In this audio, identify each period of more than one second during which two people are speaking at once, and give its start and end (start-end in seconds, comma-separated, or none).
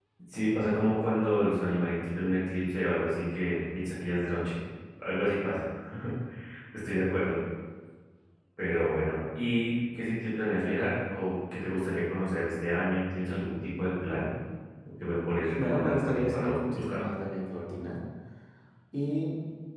15.6-17.0